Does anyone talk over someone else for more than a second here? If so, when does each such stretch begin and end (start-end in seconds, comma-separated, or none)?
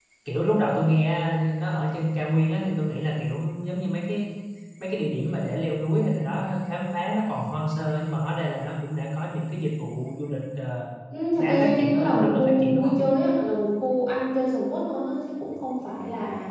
11.3-12.9